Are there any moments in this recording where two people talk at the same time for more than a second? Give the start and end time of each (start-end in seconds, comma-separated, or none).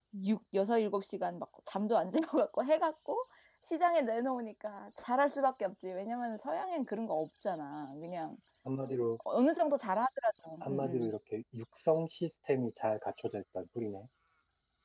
none